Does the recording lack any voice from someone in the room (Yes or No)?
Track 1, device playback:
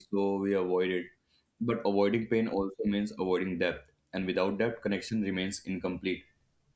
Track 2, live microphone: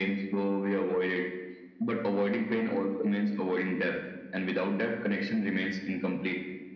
Yes